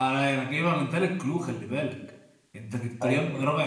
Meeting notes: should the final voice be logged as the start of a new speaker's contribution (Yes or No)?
No